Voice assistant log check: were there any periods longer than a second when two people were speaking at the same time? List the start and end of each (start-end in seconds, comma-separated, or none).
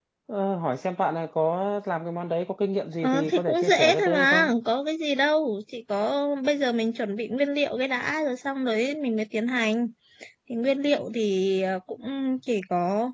3.0-4.5